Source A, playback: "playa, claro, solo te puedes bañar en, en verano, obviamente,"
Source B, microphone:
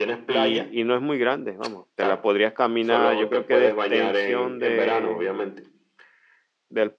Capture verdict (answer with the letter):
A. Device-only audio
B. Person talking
B